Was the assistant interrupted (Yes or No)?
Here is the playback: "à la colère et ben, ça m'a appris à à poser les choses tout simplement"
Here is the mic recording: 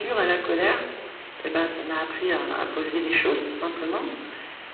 No